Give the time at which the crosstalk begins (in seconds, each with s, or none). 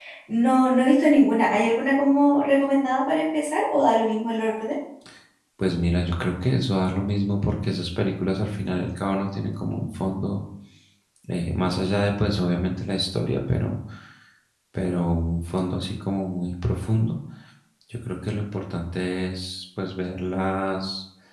none